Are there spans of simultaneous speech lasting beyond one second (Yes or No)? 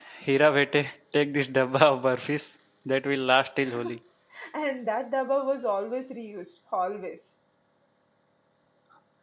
No